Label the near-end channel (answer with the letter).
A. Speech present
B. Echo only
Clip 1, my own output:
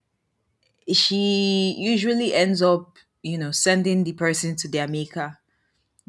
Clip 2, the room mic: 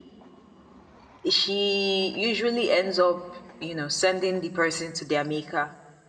B